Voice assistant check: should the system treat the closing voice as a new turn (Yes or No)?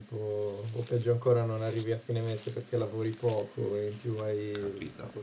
Yes